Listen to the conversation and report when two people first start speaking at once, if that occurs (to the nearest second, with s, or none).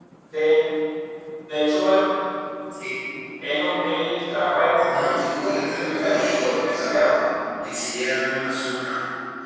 5 s